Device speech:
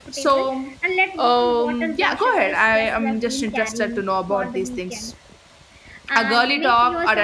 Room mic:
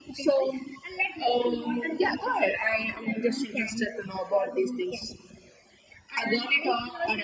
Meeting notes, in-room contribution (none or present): none